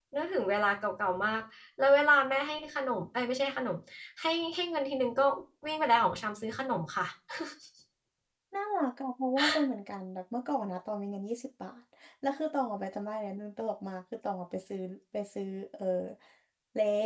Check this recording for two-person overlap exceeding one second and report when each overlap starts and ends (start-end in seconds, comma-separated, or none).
none